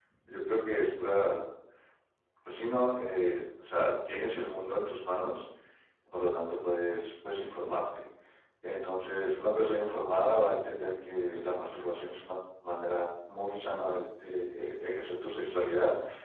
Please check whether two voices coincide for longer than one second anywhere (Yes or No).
No